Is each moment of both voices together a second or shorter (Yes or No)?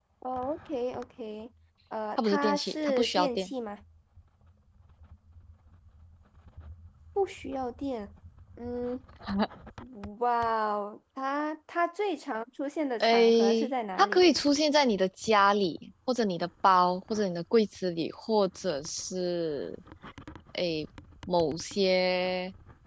No